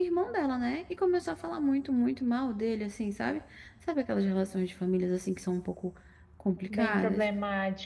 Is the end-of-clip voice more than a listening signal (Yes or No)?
Yes